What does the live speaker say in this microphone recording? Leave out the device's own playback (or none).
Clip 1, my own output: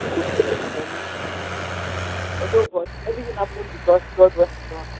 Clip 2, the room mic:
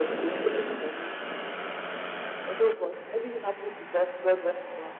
none